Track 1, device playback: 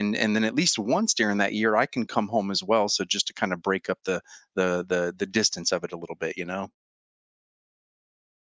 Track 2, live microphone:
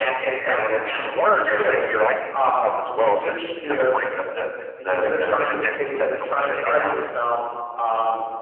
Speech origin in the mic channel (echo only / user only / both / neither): both